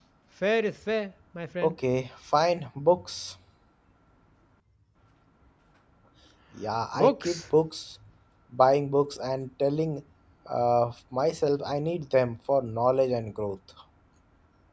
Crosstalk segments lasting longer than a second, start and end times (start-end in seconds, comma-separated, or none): none